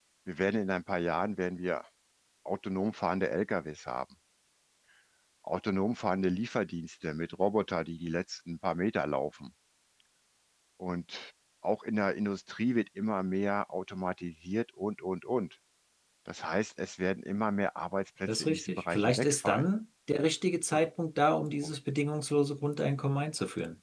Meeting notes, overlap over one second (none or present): present